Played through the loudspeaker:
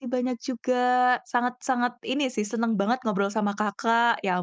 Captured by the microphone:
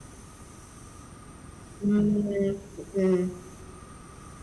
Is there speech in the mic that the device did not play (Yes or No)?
Yes